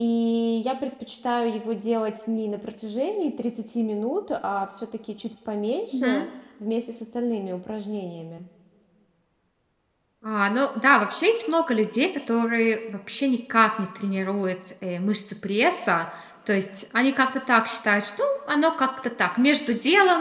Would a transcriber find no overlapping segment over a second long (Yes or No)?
Yes